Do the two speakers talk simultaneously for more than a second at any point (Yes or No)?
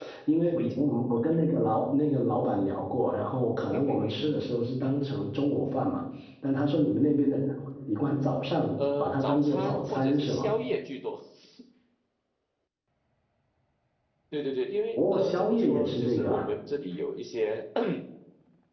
Yes